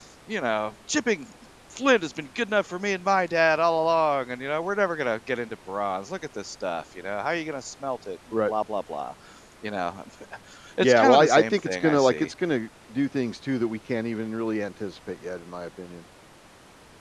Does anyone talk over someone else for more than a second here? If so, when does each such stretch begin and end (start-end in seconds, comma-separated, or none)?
10.8-12.3